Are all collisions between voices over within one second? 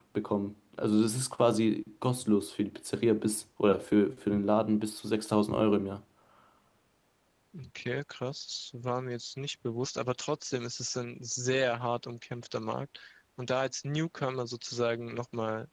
Yes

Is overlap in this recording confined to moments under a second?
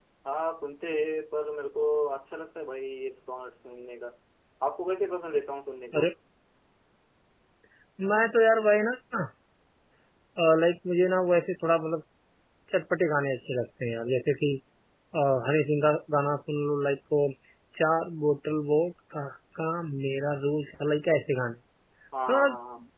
Yes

